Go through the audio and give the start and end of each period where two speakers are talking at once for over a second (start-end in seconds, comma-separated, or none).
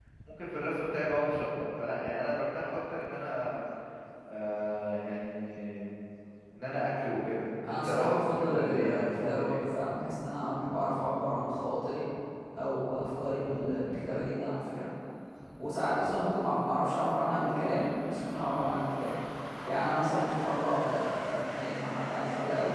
7.7-9.6